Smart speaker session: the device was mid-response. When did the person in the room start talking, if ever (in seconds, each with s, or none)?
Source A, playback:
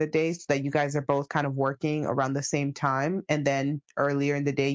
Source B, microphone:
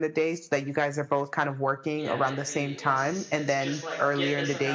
2.0 s